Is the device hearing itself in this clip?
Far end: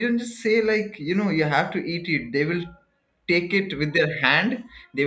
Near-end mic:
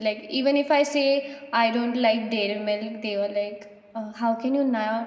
No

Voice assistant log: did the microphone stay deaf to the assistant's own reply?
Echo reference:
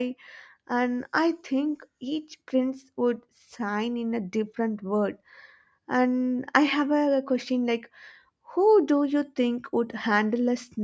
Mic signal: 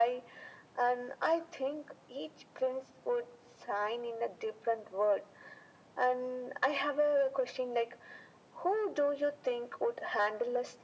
No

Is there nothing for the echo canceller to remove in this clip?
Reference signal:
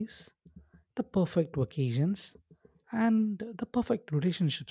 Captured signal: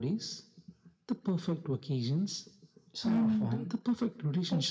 No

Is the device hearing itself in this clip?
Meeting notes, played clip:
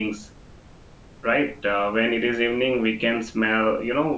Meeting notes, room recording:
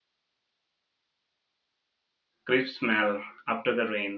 No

